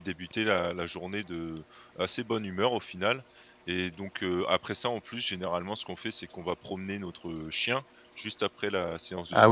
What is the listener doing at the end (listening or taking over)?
taking over